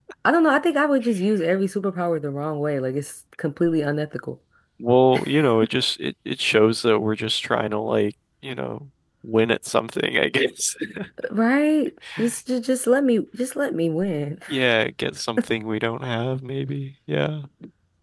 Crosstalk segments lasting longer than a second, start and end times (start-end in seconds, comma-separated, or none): none